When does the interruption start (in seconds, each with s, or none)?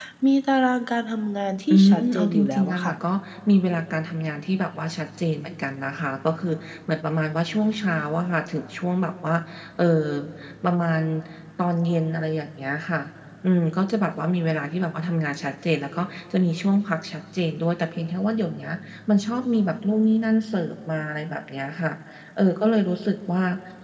1.7 s